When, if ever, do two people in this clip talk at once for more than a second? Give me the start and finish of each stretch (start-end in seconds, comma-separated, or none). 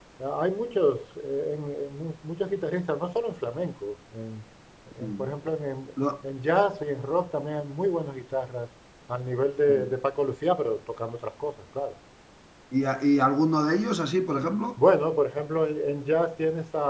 none